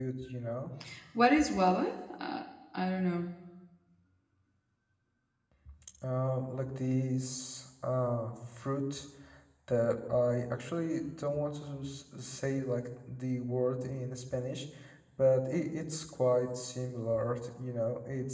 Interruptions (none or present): none